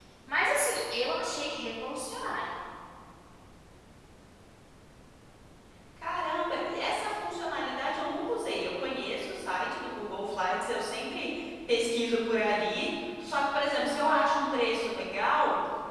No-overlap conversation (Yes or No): Yes